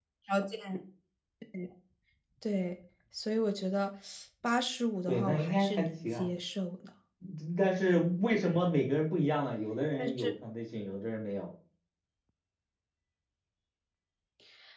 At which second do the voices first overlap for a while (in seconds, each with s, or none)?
5.1 s